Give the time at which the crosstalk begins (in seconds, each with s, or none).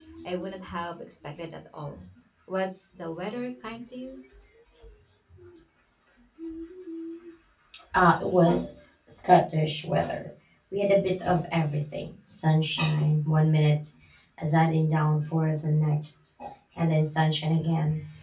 none